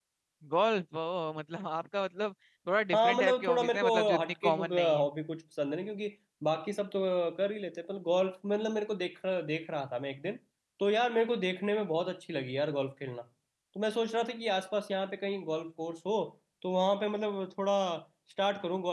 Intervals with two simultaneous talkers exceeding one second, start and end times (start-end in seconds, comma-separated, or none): 2.9-5.1